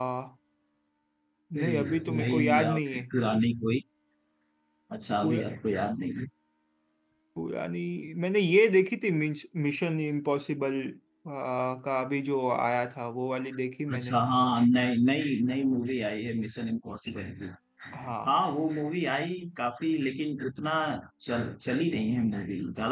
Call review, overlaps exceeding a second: present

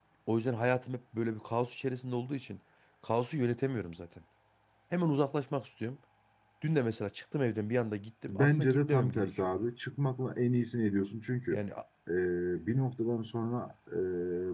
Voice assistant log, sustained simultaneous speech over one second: present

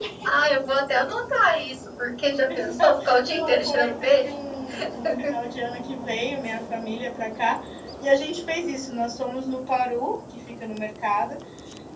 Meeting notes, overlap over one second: present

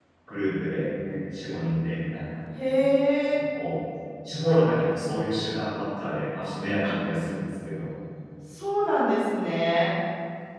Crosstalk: none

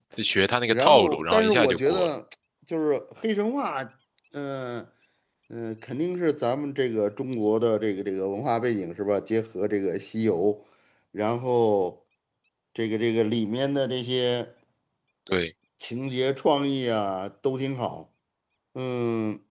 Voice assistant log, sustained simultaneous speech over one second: present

